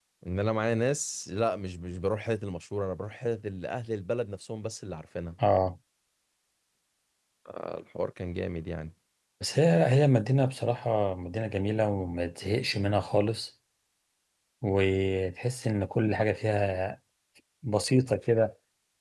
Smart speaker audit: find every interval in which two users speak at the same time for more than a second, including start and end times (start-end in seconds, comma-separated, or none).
none